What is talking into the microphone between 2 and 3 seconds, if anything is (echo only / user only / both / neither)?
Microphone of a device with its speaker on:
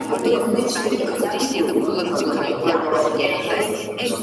both